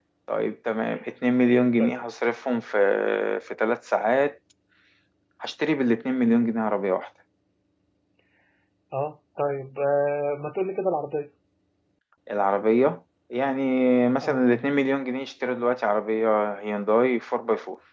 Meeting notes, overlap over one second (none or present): none